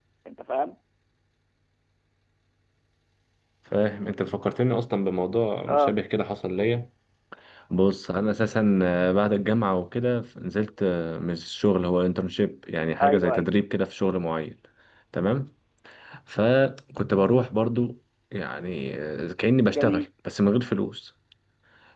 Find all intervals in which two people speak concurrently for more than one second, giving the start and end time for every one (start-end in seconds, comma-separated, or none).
none